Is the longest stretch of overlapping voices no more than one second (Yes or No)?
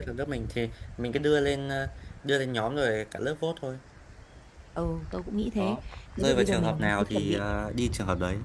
No